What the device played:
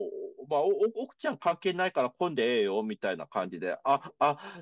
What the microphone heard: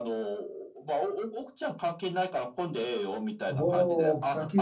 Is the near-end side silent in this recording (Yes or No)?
No